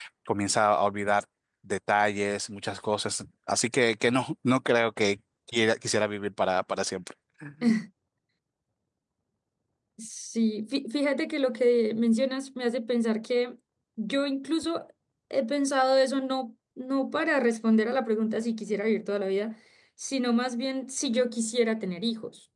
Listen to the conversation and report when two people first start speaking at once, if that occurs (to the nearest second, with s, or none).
none